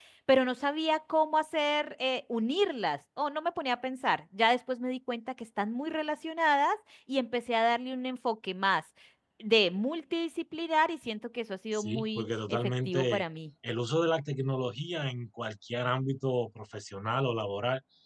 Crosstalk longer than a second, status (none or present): present